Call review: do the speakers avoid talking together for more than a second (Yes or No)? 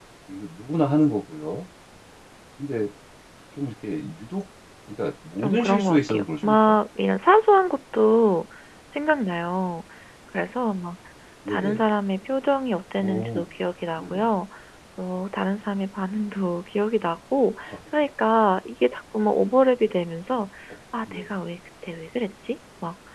No